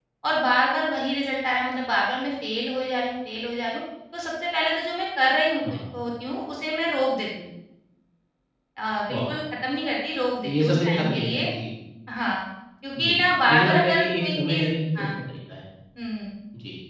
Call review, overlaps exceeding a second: present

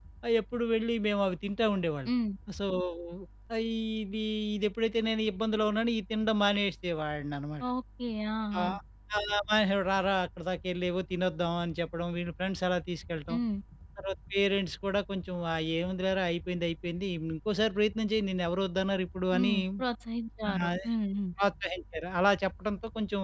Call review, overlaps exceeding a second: none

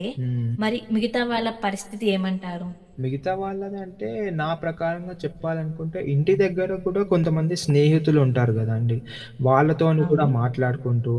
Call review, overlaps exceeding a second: none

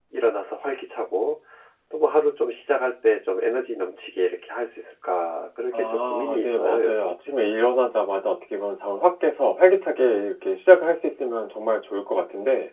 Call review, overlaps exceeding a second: present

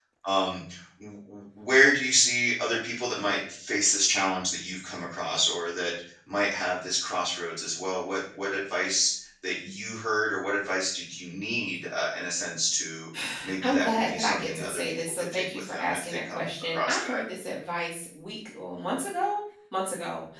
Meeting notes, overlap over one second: present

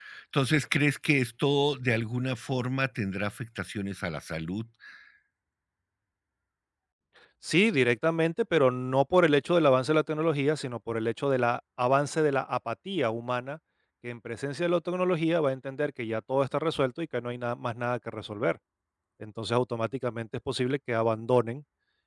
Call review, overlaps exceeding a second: none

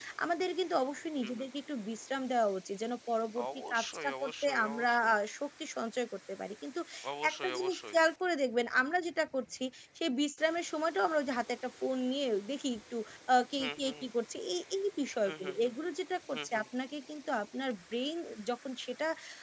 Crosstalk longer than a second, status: present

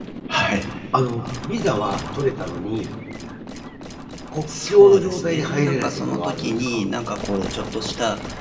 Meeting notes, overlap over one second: present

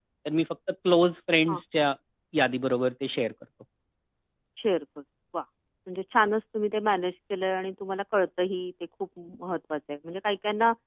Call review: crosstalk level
none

